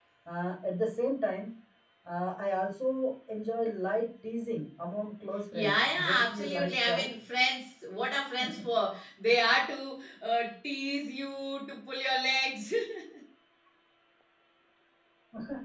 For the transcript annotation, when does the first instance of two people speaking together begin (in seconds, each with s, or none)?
5.5 s